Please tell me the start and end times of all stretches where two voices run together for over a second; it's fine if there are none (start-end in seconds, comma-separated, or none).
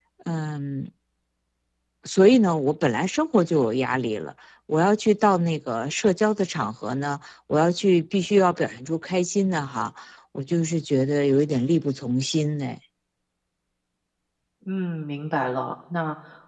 none